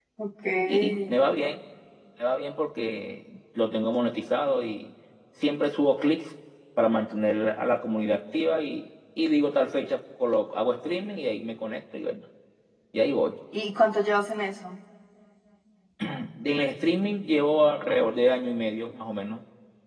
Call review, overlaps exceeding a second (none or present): none